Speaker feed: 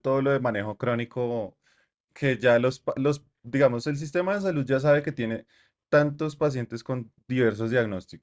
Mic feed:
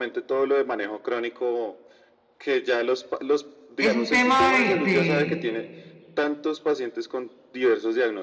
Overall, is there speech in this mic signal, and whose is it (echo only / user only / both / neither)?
both